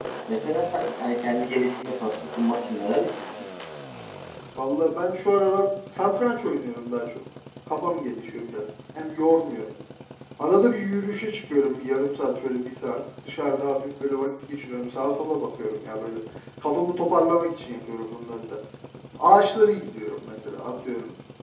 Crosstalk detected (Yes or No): No